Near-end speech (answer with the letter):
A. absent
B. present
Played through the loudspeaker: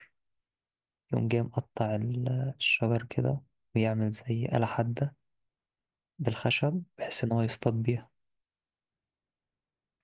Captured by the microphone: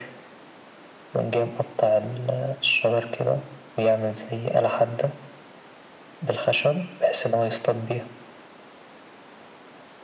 A